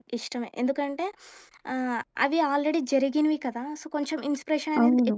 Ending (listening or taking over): listening